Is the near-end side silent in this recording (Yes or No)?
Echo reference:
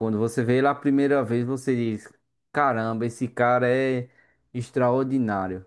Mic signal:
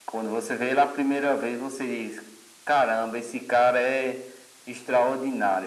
Yes